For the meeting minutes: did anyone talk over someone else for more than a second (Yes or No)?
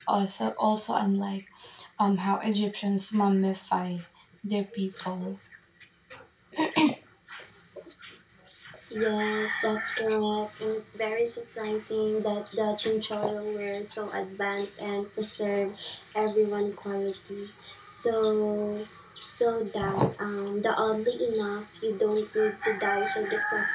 No